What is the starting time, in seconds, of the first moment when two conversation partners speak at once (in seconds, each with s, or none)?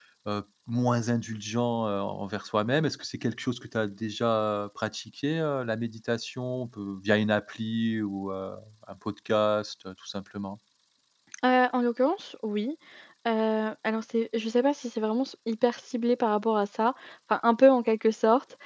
none